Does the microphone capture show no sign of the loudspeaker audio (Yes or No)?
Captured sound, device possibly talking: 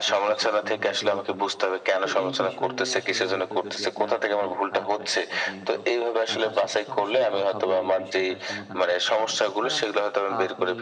No